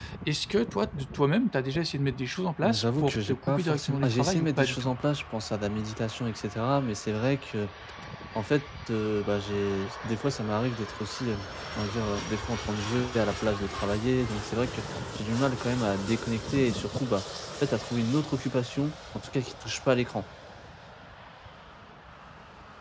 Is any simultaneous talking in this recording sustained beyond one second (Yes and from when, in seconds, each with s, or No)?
Yes, from 2.6 s